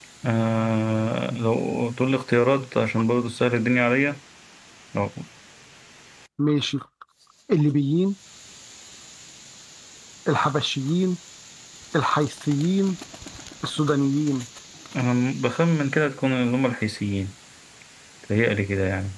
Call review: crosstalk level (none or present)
none